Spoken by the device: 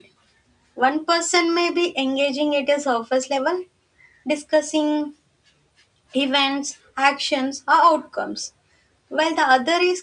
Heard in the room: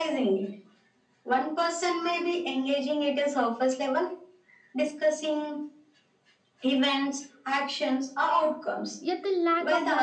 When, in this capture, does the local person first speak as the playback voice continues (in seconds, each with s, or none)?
9.0 s